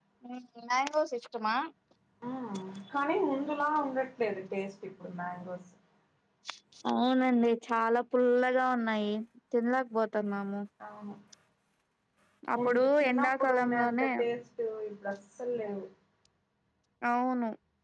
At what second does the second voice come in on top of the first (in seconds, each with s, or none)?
12.7 s